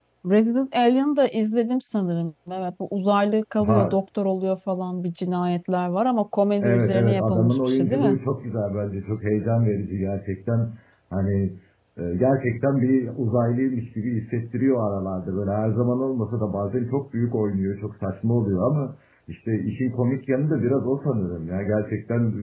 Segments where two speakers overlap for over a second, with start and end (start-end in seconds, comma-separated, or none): 6.6-8.2